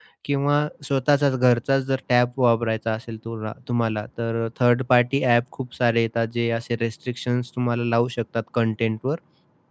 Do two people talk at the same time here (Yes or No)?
No